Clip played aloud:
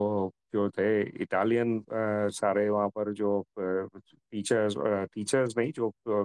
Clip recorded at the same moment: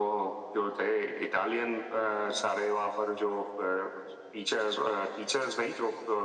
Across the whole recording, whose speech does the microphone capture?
echo only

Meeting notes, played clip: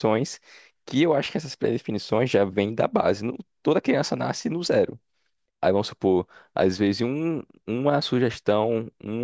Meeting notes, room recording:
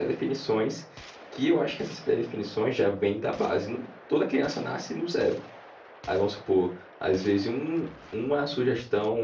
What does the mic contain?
echo only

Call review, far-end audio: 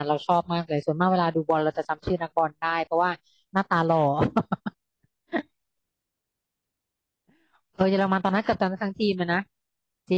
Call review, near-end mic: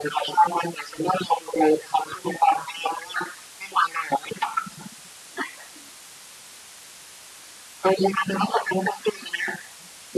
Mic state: echo only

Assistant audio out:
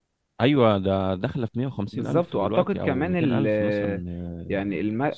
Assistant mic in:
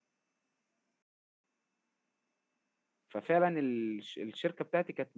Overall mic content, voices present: user only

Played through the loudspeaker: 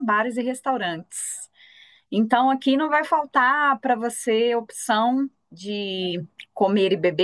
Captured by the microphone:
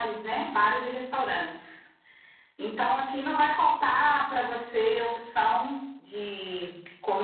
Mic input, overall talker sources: echo only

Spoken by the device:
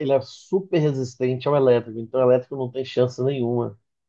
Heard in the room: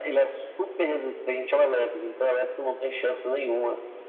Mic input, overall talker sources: echo only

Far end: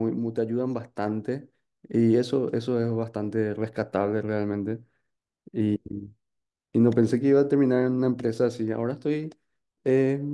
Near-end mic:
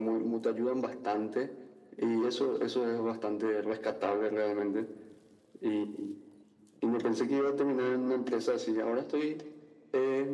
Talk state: echo only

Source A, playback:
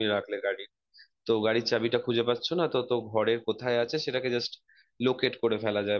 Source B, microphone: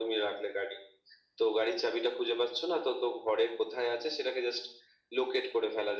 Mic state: echo only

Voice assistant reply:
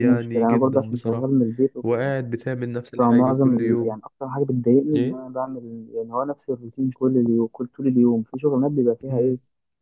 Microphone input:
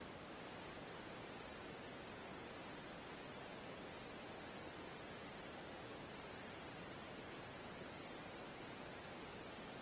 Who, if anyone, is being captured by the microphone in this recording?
neither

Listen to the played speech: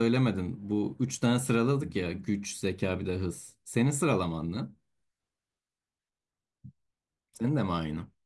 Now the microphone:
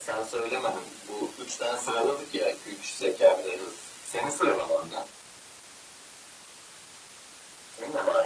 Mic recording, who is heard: echo only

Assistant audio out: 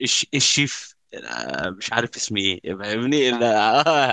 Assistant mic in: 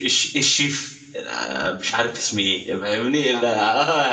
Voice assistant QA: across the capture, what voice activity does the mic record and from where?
echo only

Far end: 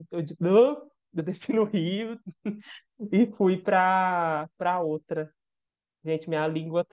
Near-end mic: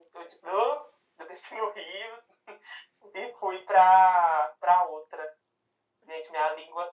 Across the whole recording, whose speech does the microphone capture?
echo only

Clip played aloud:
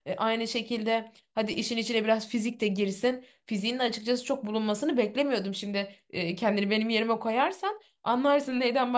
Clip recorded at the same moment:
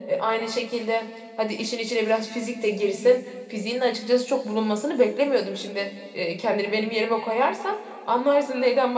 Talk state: echo only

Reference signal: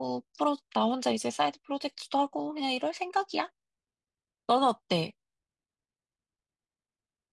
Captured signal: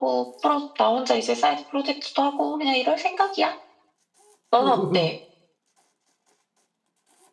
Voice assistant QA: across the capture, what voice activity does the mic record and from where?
both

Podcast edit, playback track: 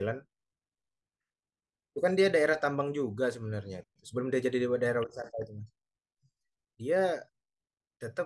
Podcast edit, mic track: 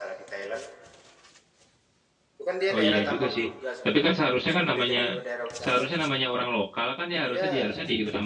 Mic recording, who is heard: both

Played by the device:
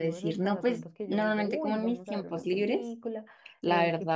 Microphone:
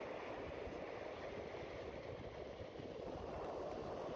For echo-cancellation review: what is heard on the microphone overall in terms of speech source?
neither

